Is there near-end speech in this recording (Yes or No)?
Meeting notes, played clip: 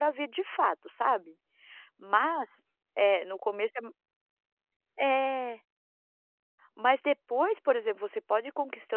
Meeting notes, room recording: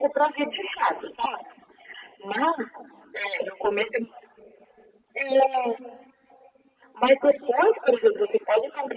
No